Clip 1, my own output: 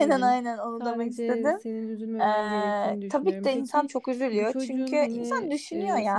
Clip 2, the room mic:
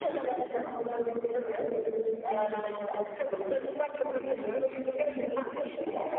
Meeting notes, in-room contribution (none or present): none